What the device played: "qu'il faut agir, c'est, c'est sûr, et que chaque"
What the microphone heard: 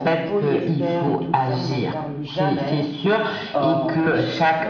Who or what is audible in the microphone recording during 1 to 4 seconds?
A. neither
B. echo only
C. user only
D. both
D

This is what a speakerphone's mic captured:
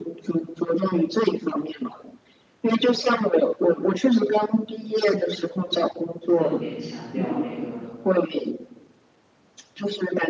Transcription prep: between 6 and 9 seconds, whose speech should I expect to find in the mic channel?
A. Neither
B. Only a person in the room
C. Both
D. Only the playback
C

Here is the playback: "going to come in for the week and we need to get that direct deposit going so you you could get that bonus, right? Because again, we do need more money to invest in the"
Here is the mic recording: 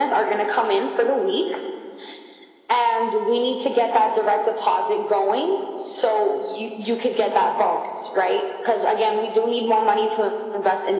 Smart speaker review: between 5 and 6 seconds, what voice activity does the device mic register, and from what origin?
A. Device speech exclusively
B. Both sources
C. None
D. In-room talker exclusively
A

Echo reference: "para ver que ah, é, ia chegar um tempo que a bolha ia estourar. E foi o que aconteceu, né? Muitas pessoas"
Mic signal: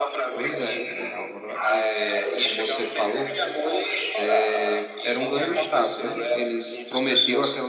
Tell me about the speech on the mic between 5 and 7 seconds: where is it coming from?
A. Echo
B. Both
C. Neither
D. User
B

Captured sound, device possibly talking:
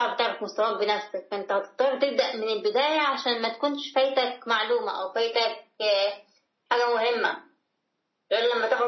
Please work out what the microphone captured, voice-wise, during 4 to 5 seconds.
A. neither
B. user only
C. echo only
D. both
C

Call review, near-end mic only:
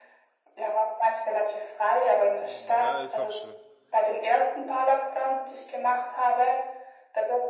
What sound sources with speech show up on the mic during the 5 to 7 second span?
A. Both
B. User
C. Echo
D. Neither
C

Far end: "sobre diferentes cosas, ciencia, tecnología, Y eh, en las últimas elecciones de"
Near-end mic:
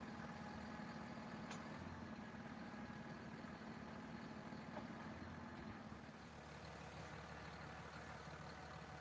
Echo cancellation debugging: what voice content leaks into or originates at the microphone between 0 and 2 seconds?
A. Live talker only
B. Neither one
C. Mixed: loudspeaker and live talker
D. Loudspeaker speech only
B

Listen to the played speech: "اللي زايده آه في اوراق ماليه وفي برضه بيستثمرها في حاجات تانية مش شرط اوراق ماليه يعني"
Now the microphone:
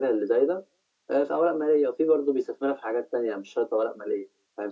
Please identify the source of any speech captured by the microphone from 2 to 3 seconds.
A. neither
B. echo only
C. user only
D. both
B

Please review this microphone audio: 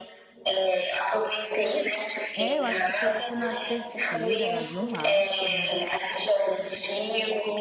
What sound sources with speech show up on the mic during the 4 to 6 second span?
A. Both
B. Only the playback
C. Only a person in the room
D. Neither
A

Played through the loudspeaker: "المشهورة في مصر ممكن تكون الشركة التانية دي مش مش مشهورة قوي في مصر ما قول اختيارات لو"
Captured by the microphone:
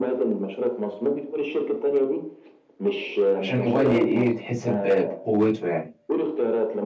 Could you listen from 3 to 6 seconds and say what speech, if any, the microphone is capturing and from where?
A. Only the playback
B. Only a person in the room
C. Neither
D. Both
D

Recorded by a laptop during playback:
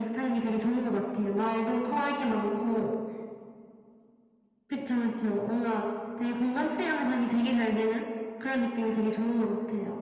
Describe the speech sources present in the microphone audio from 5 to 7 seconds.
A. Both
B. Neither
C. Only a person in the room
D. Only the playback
D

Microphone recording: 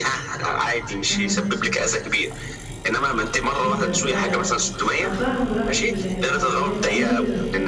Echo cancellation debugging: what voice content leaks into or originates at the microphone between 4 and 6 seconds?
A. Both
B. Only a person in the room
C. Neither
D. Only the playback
A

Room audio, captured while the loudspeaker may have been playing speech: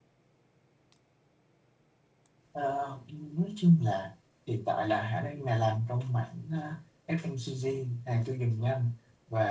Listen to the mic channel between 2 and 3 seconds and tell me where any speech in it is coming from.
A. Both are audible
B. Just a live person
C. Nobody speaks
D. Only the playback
B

